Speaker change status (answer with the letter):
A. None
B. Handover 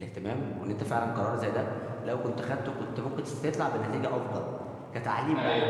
A